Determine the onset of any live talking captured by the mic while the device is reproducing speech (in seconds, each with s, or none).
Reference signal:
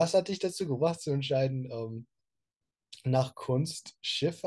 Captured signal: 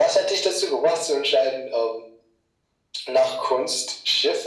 none